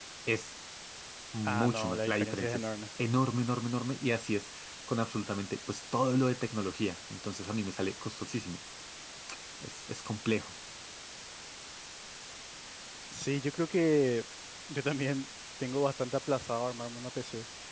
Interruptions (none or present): present